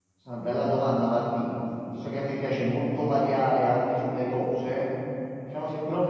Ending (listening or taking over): listening